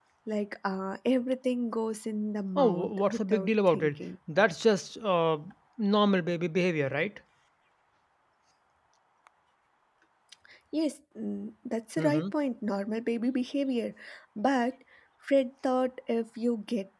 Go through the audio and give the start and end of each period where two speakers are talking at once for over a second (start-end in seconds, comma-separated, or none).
2.6-4.0